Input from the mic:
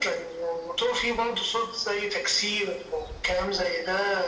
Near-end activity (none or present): none